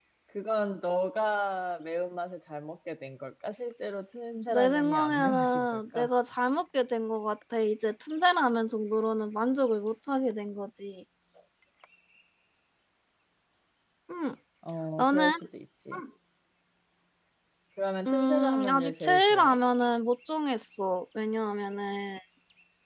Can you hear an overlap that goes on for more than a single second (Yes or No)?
Yes